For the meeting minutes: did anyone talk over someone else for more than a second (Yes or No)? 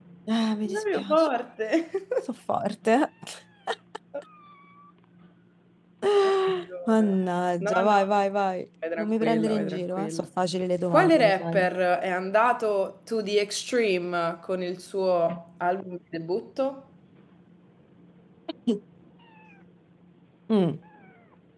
Yes